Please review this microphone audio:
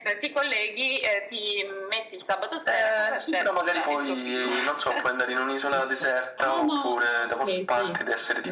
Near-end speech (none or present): present